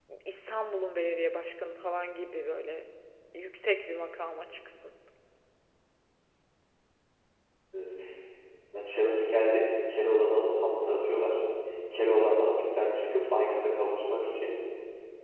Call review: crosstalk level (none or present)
none